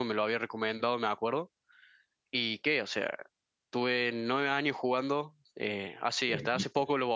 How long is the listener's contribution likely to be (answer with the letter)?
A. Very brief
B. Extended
A